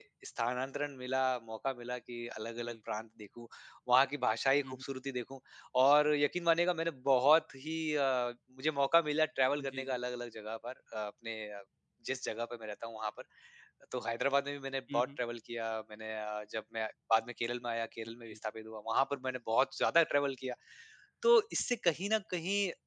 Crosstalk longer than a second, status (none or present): none